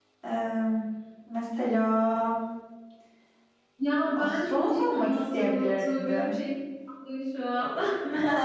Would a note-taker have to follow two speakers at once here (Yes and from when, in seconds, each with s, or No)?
Yes, from 4.2 s